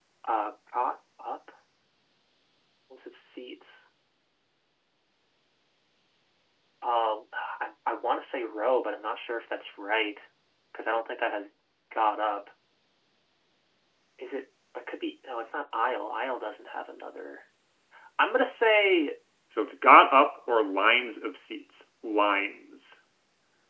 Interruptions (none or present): none